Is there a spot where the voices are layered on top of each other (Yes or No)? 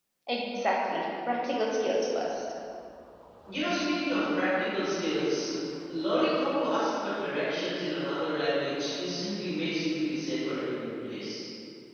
No